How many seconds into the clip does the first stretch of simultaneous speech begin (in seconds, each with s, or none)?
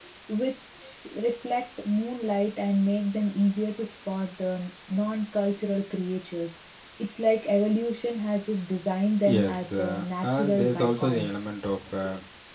9.2 s